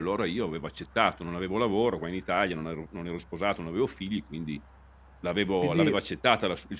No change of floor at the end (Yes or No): Yes